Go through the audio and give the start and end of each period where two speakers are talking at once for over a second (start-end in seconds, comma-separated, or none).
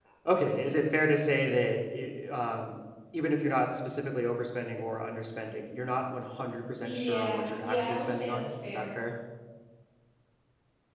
6.8-9.0